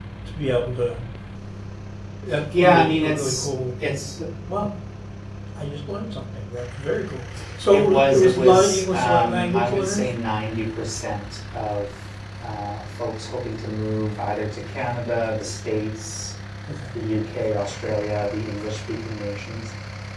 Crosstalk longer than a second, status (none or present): present